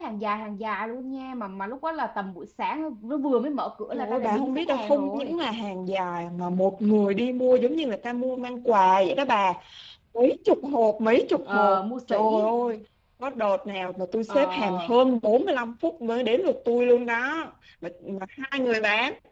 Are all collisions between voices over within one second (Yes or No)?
No